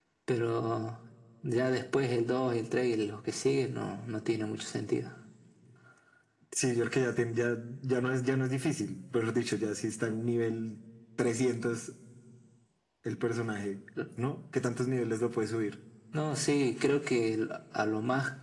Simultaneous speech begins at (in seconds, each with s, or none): none